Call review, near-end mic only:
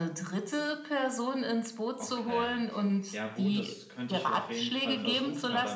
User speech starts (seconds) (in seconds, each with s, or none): 2.0 s